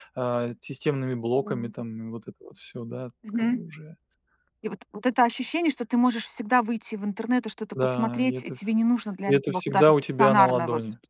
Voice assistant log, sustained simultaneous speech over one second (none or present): present